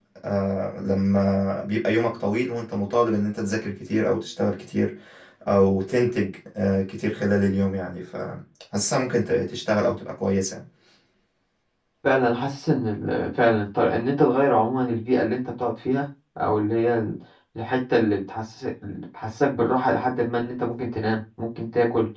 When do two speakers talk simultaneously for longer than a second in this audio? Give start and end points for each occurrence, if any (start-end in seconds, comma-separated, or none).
none